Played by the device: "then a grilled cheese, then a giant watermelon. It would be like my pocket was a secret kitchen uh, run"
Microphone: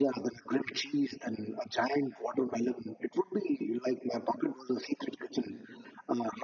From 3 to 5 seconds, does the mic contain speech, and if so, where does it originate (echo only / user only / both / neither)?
echo only